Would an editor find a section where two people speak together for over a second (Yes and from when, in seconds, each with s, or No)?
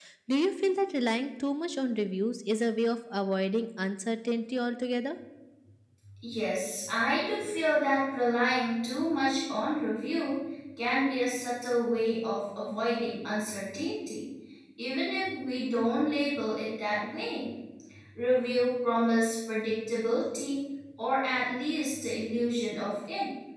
No